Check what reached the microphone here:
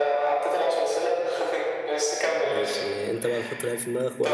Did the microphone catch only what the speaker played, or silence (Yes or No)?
No